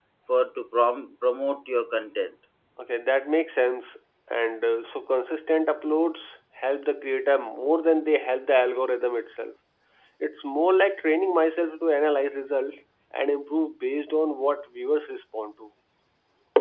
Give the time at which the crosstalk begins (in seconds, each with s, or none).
none